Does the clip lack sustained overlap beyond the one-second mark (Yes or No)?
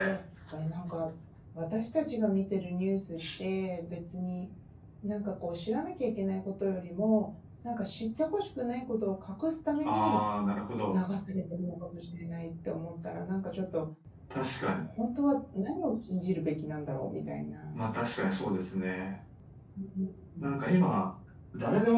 Yes